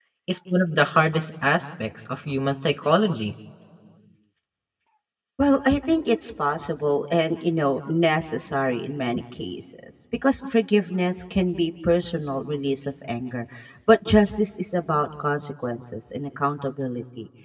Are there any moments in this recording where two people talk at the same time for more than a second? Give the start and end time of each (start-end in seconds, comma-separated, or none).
none